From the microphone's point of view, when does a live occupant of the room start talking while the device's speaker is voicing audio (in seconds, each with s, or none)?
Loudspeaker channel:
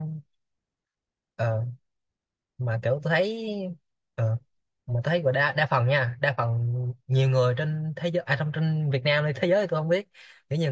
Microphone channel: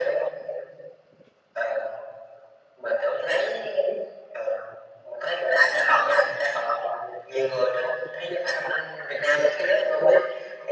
none